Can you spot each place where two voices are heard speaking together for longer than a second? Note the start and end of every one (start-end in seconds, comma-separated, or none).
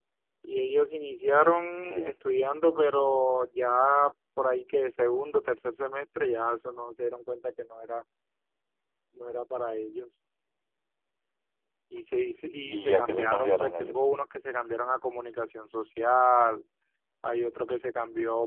12.6-14.1